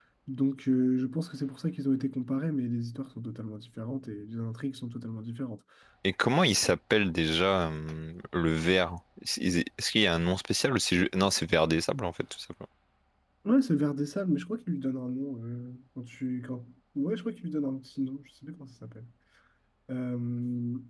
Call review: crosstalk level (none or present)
none